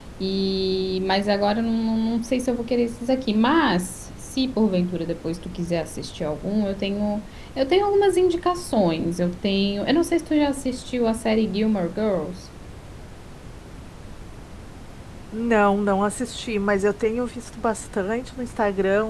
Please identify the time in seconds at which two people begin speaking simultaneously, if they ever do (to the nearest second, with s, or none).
none